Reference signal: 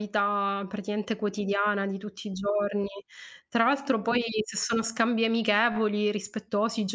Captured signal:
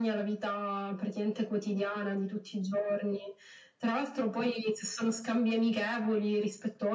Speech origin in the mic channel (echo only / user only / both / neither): echo only